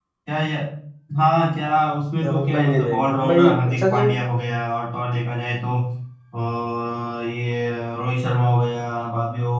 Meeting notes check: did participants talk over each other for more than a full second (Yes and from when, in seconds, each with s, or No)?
Yes, from 2.2 s